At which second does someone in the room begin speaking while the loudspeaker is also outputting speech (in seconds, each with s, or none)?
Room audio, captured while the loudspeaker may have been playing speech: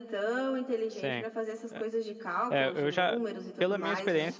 0.9 s